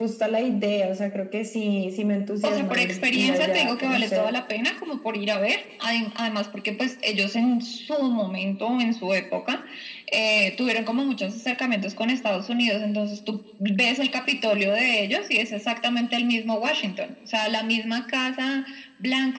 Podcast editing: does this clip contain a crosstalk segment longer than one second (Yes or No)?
Yes